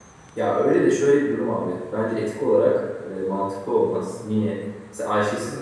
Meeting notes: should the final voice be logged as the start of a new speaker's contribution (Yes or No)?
No